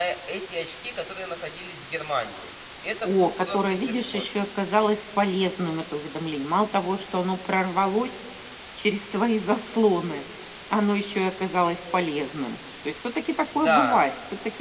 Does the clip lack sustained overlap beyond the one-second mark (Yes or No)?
No